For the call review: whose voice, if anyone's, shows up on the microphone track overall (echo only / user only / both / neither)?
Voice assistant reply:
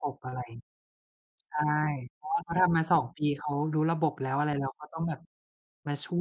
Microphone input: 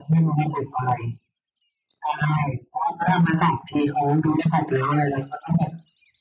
echo only